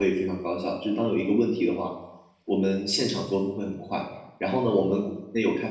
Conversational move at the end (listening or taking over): listening